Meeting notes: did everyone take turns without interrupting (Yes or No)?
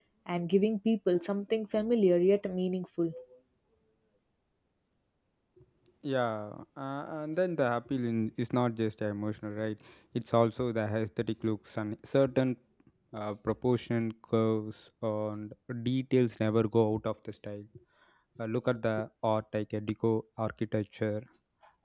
Yes